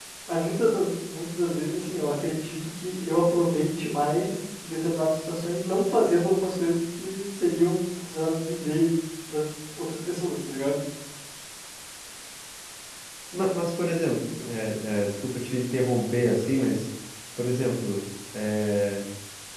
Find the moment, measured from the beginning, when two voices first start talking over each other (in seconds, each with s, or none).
none